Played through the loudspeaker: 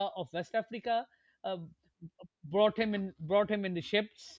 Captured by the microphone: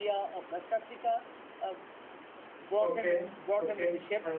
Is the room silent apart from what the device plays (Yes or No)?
No